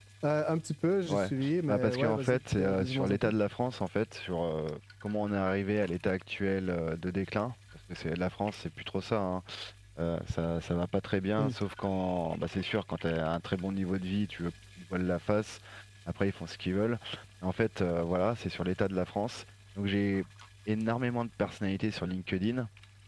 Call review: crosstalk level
present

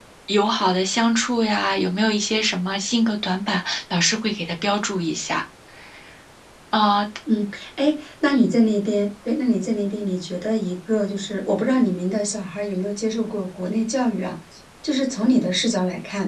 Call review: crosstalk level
none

